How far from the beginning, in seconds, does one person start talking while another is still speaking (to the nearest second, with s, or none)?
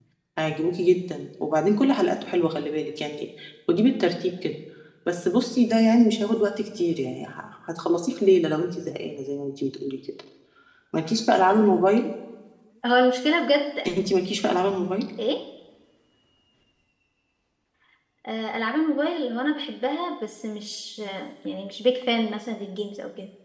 none